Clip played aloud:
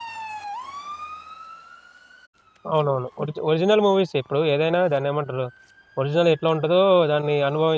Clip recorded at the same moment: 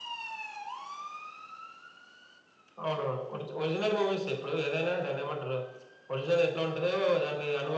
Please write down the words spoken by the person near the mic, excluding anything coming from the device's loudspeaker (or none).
none